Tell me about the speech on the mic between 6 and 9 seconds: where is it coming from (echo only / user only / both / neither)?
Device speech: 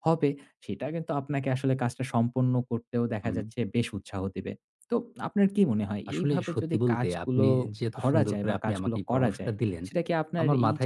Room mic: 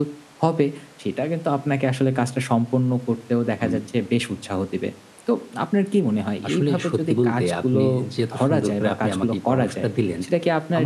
echo only